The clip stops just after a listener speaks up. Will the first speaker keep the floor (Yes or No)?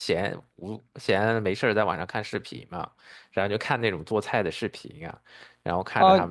No